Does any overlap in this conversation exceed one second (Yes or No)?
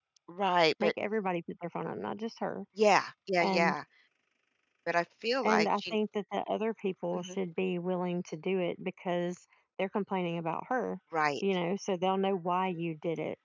No